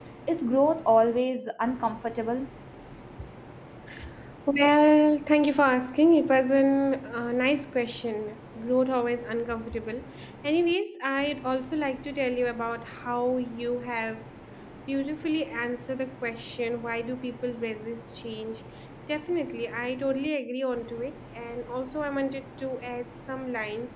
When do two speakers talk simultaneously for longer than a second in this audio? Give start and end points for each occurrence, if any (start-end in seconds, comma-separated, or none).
none